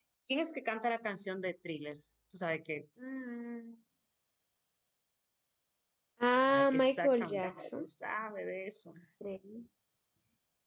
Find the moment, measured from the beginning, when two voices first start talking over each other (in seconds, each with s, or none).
6.5 s